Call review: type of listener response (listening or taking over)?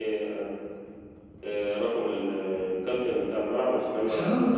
listening